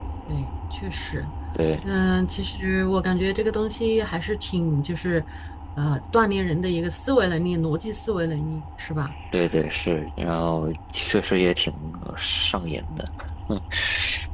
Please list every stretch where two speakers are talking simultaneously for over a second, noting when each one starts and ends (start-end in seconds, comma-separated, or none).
none